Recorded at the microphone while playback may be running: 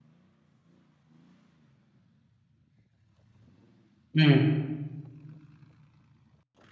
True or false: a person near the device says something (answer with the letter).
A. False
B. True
B